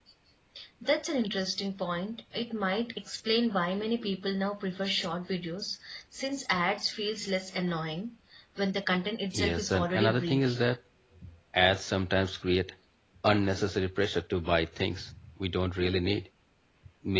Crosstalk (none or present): present